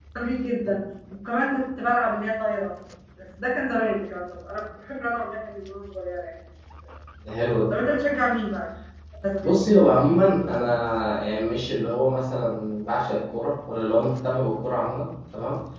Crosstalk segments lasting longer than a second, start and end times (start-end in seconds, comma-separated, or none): none